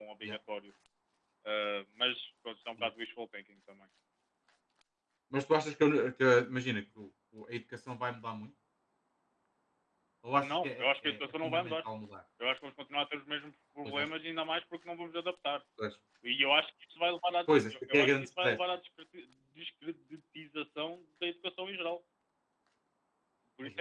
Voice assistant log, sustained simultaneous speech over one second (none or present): present